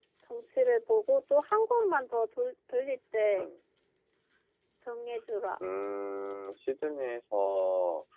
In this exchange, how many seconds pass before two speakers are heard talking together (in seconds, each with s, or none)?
none